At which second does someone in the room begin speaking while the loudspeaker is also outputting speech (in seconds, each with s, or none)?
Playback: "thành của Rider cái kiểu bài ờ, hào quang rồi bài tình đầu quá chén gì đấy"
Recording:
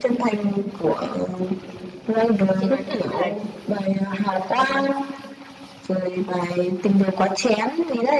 2.6 s